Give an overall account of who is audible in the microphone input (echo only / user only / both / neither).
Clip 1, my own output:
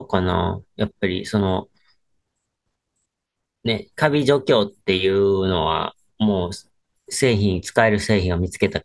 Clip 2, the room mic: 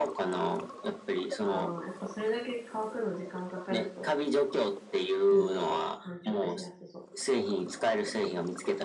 both